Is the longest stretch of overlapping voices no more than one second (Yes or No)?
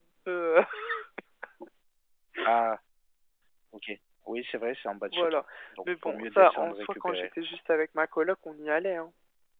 No